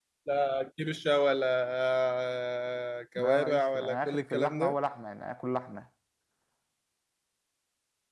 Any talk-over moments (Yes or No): Yes